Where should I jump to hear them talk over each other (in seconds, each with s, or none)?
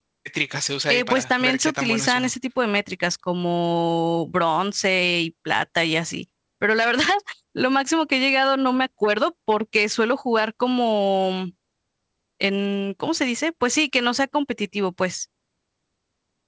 0.9 s